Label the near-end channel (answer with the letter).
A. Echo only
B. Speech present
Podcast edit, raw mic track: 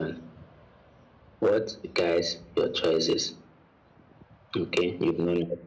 A